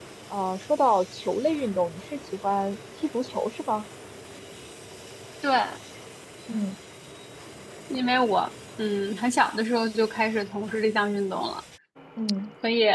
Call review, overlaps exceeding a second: none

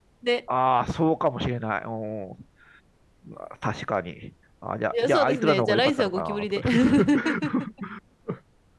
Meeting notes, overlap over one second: present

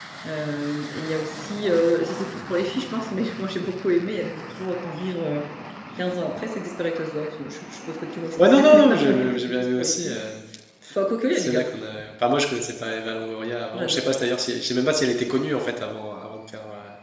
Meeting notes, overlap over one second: present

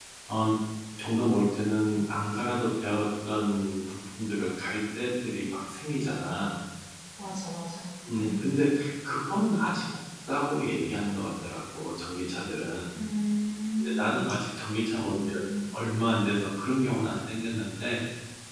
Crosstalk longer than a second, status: none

